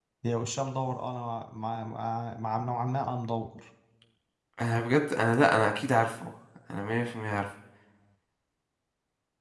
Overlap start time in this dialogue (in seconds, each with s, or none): none